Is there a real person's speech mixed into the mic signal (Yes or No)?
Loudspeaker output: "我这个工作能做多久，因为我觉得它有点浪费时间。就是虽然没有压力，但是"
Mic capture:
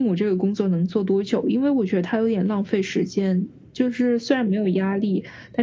No